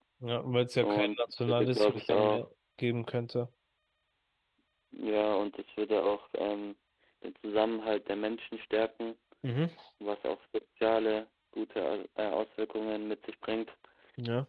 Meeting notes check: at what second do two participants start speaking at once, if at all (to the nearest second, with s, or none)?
1 s